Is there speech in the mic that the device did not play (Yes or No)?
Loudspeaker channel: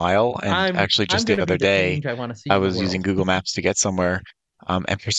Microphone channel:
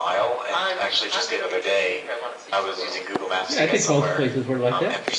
Yes